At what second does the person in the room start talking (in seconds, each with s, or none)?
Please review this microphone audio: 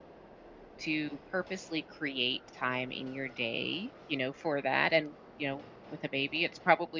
0.8 s